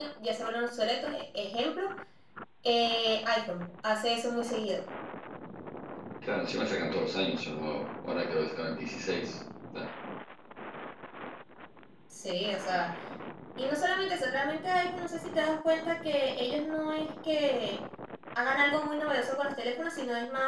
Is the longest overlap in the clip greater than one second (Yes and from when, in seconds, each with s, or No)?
No